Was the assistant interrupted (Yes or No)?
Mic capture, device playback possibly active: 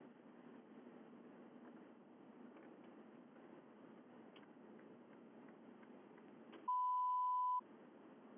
No